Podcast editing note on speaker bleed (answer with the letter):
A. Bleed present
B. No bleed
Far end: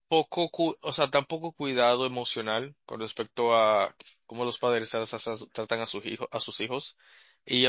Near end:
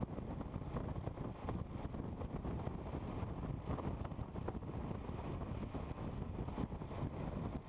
B